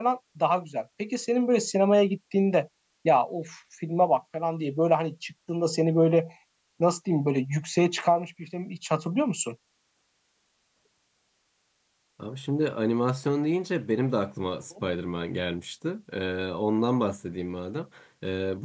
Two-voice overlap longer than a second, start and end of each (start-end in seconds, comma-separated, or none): none